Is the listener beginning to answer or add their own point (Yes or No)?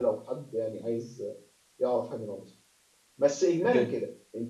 No